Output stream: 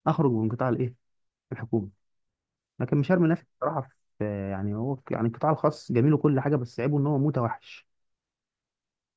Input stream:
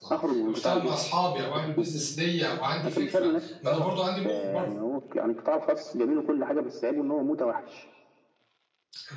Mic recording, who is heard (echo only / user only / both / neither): both